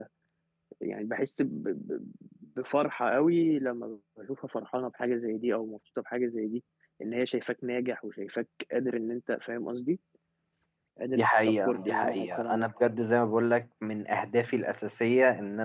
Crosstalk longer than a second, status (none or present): present